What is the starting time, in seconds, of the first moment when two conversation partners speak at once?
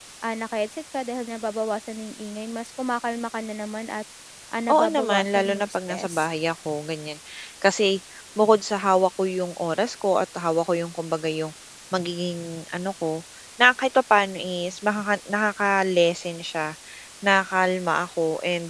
5 s

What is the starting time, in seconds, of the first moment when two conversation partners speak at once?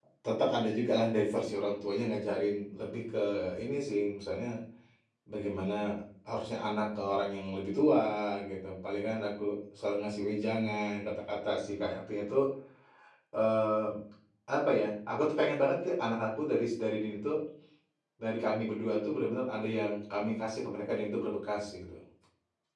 none

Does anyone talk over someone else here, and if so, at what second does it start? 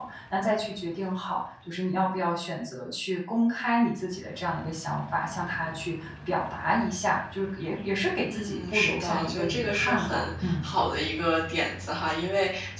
8 s

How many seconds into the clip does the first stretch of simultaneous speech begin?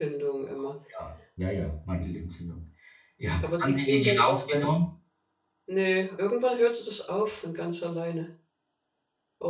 3 s

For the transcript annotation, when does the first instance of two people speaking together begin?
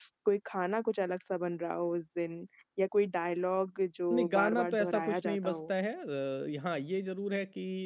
4 s

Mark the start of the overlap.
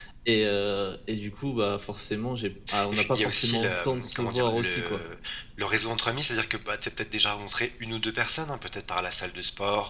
3 s

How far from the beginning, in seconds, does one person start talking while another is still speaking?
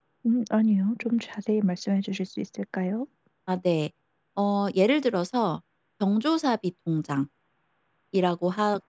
none

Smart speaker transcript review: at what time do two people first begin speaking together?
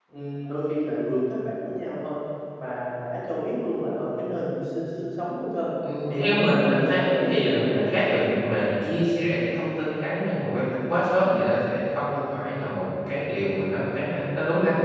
6 s

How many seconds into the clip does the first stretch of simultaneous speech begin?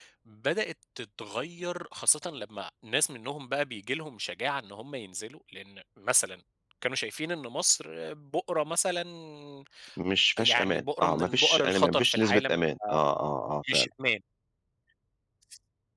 10 s

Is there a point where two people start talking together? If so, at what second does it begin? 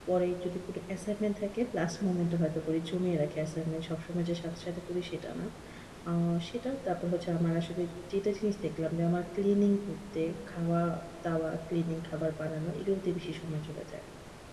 none

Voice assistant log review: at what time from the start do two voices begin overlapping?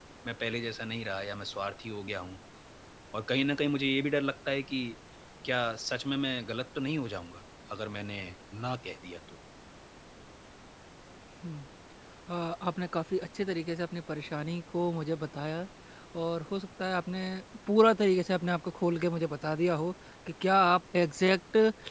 none

